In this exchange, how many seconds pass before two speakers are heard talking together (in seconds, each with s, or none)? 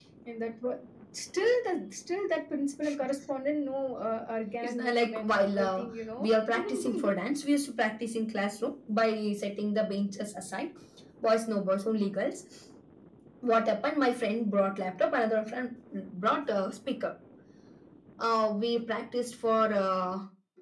4.6 s